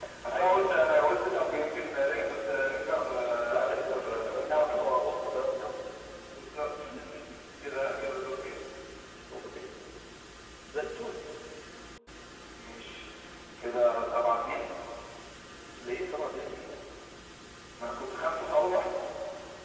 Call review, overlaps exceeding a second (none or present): present